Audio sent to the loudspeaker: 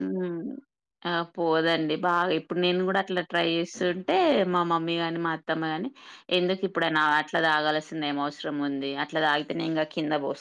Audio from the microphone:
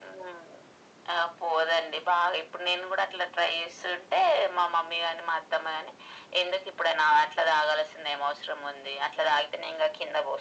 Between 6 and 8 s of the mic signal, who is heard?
echo only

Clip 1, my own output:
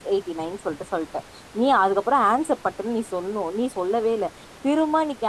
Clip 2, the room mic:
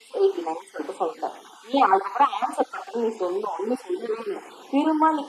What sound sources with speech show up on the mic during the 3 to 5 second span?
echo only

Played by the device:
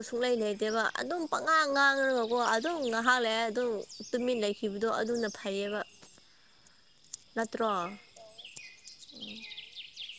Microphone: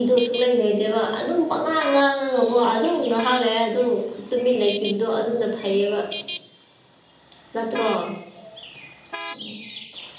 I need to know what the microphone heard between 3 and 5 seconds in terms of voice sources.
echo only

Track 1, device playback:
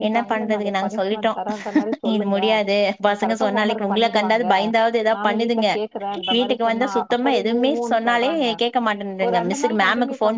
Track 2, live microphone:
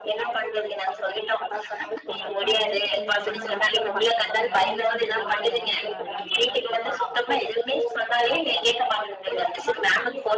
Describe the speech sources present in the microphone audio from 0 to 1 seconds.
echo only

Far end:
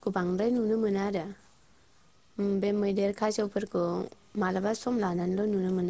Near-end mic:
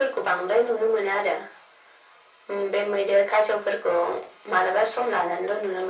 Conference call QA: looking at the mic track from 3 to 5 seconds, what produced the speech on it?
echo only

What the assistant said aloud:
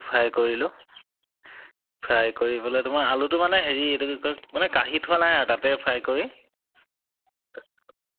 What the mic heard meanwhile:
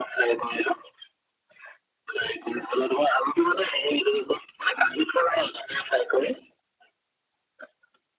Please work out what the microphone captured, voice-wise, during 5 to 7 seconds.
echo only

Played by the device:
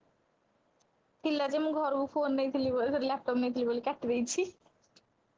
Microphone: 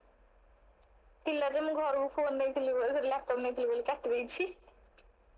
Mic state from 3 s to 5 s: echo only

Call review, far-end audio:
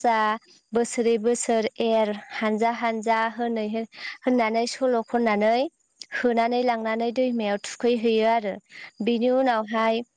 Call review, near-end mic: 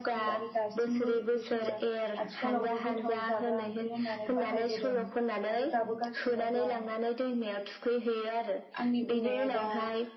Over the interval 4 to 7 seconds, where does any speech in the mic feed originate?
both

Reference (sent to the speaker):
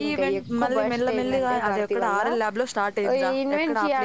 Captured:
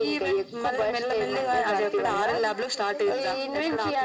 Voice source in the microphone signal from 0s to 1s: echo only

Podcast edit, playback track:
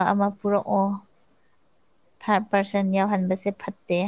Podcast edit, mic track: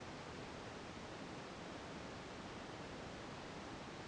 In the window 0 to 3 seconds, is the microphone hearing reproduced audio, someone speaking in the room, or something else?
neither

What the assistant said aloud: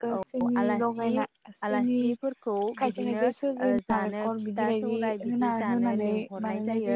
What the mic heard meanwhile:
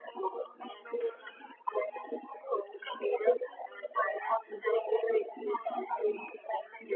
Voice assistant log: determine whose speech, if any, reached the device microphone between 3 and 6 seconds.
echo only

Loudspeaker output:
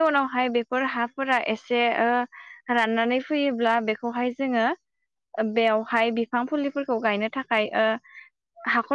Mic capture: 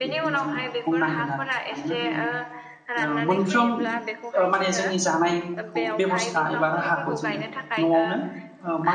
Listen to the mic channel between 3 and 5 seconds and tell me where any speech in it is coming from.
both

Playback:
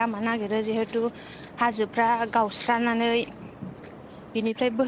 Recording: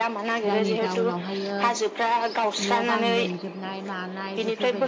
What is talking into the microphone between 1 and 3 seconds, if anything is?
both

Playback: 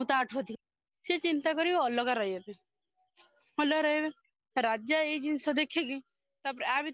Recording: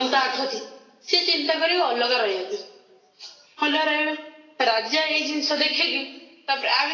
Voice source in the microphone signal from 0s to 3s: echo only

